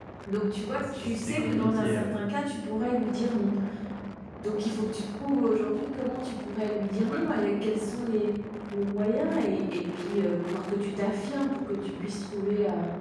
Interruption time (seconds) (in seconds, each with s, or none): 0.7 s